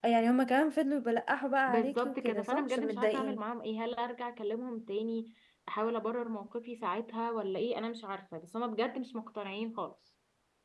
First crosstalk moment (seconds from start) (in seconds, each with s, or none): 1.7 s